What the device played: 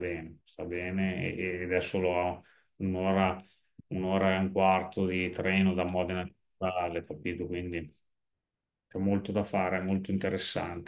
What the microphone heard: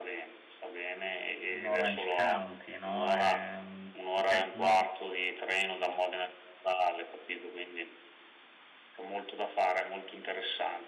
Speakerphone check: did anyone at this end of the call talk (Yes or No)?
Yes